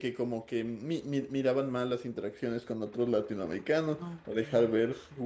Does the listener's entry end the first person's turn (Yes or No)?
No